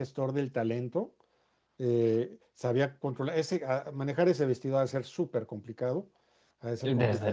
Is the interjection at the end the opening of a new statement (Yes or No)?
Yes